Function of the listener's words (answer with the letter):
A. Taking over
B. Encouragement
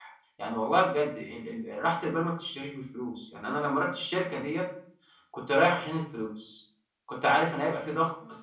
B